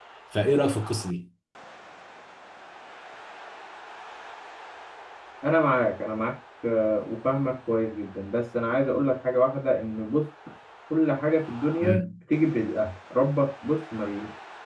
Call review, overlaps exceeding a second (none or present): none